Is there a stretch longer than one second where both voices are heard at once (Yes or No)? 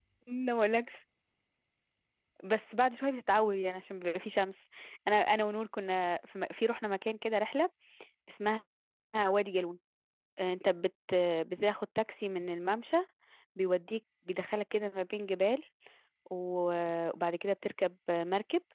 No